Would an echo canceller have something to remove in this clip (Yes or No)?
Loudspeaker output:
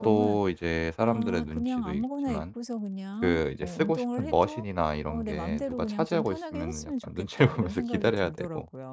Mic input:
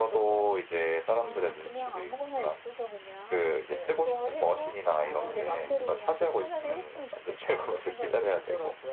Yes